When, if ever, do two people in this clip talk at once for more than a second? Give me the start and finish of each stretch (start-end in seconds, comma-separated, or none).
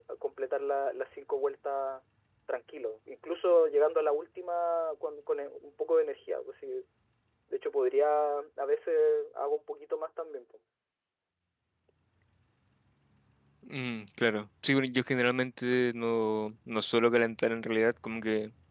none